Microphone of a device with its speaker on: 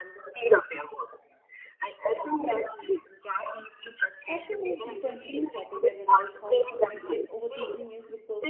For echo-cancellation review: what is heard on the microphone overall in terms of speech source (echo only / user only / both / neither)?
both